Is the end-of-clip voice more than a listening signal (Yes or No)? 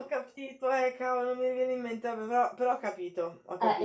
Yes